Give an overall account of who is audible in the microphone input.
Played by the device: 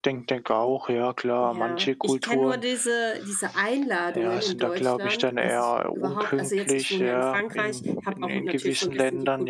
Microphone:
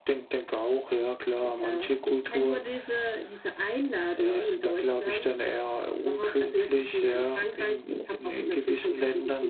echo only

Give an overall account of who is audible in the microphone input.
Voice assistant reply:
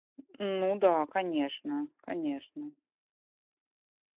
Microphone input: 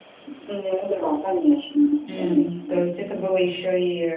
both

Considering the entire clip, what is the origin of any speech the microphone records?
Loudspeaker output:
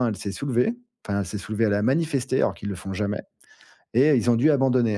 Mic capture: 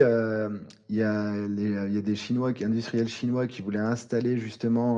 user only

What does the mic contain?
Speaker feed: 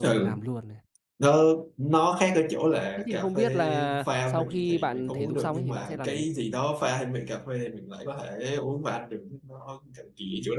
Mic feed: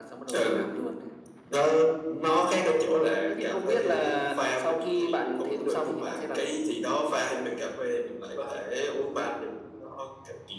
echo only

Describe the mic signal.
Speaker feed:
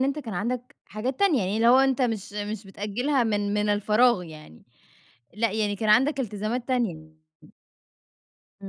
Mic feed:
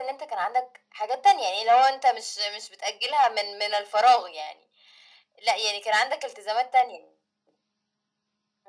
echo only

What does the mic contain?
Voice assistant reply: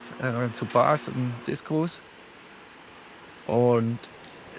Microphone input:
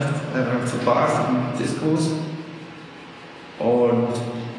echo only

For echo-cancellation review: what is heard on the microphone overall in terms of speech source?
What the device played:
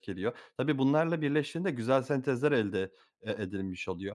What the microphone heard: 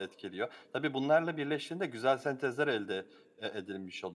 echo only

